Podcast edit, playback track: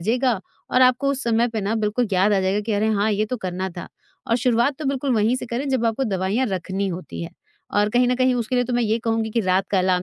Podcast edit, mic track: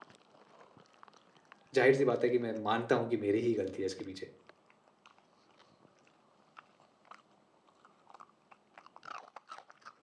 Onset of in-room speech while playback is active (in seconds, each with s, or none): 1.8 s